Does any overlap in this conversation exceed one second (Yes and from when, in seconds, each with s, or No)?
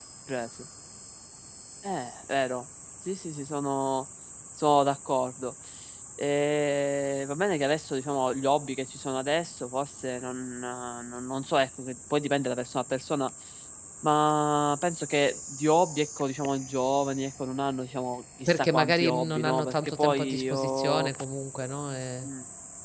Yes, from 18.5 s